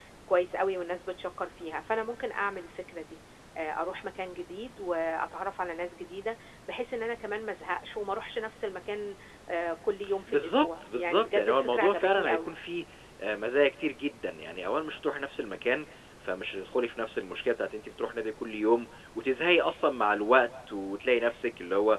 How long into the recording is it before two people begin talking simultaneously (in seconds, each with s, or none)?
10.3 s